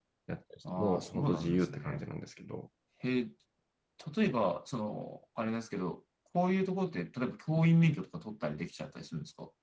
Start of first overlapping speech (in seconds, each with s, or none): 0.8 s